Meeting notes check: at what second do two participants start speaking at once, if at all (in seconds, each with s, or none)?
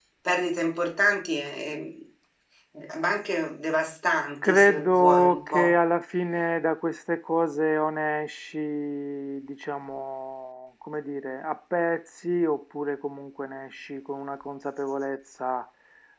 4.4 s